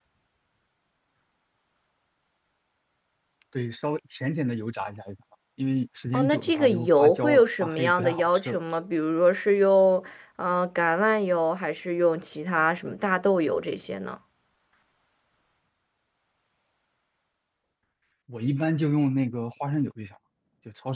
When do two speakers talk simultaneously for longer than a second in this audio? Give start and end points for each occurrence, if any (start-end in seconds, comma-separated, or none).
6.1-8.6